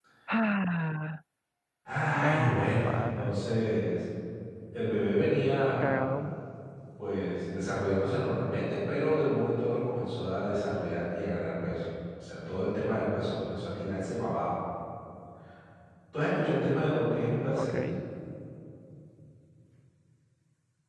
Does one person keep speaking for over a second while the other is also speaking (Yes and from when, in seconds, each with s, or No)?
Yes, from 2.1 s